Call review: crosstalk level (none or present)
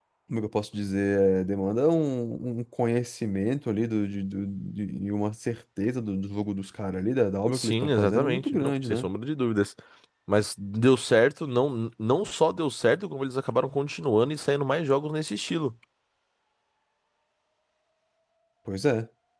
present